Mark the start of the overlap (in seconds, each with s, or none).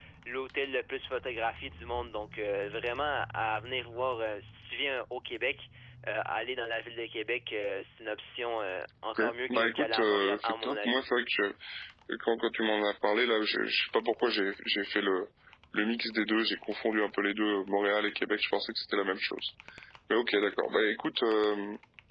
9.2 s